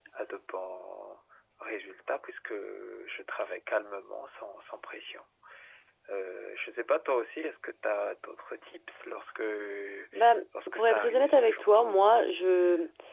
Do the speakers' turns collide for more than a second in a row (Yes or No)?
Yes